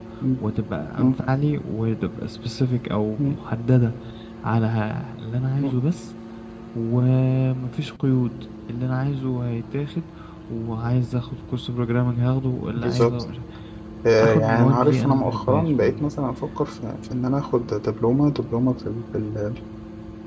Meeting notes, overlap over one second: present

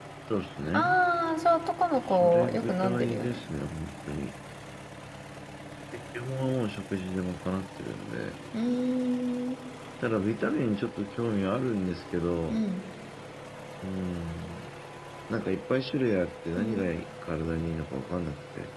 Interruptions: present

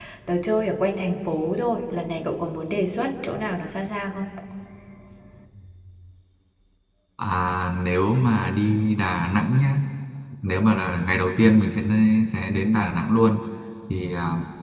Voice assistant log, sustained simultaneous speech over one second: none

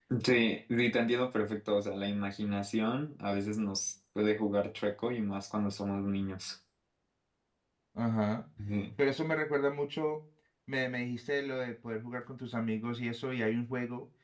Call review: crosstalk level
none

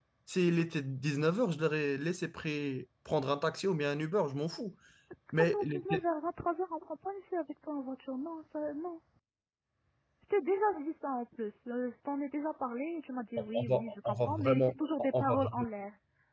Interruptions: present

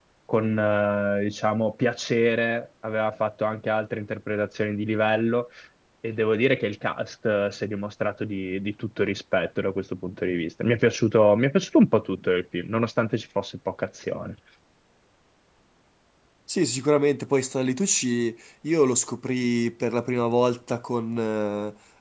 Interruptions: none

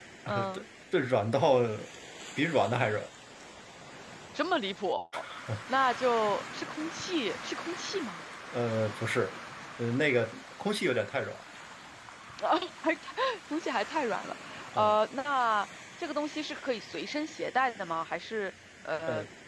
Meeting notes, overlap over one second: none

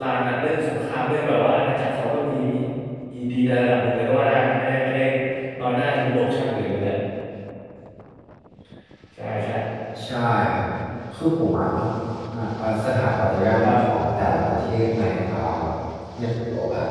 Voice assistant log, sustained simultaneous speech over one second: none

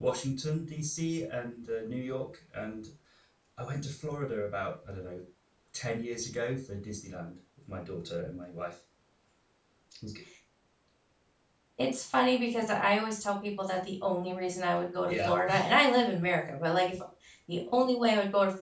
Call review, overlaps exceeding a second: none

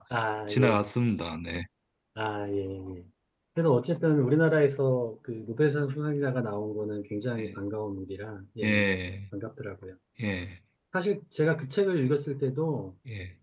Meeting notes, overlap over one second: none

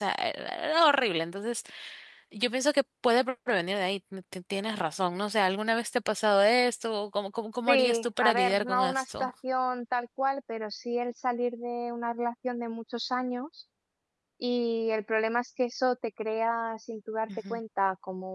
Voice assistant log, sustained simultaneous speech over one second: present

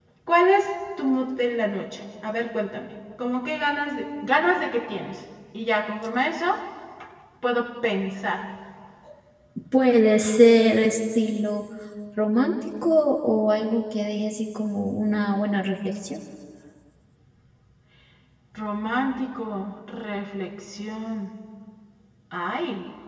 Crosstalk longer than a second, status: none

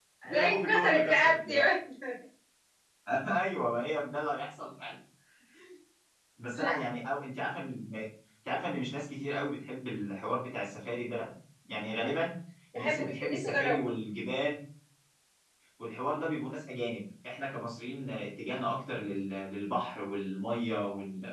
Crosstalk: present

